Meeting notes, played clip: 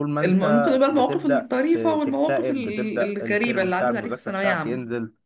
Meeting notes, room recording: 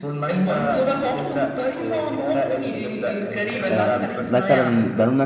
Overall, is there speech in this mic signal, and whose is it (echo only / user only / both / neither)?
both